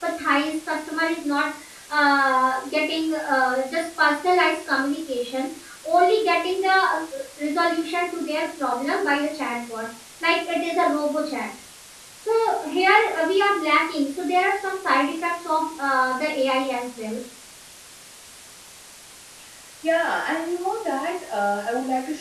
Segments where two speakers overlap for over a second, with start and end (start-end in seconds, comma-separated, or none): none